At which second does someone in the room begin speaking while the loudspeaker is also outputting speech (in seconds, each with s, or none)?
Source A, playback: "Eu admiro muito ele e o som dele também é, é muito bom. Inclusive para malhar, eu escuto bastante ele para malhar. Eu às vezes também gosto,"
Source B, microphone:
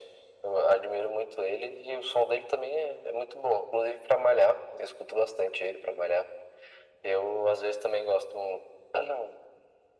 none